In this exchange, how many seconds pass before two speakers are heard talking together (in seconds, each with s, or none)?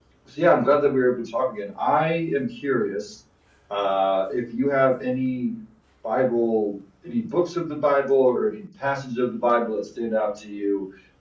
none